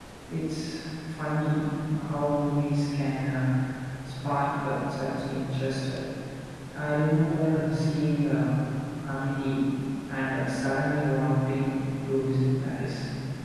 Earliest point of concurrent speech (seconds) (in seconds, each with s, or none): none